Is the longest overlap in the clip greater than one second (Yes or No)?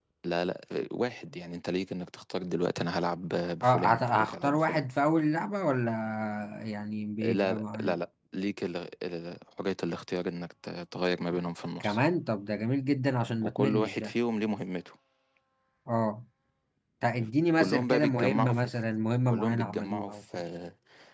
Yes